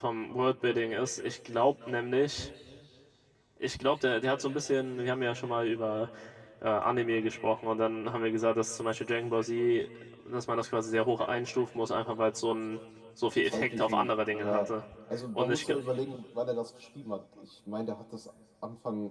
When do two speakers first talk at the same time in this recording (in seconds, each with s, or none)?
13.4 s